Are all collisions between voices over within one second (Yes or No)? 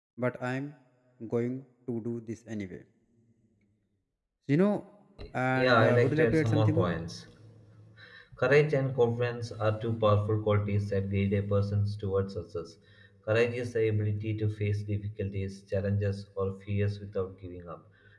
No